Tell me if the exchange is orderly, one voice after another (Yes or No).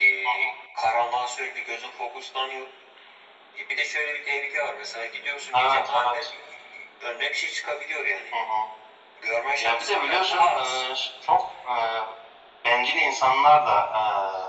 No